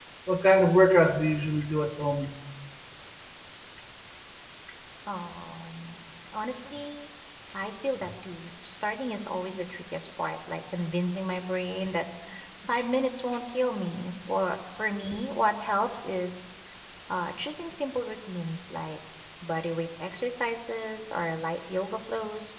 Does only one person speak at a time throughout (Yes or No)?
Yes